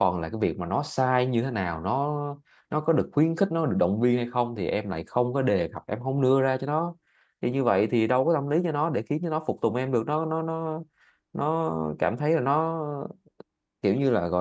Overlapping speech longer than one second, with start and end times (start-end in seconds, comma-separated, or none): none